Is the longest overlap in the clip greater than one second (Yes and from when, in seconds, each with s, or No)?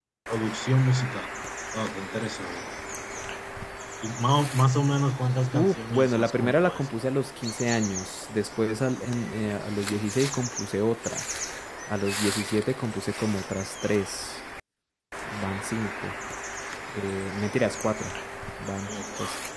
Yes, from 5.5 s